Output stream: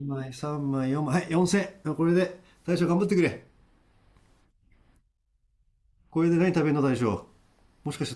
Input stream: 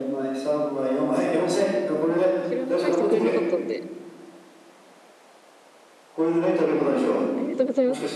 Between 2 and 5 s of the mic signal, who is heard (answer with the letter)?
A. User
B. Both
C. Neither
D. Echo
B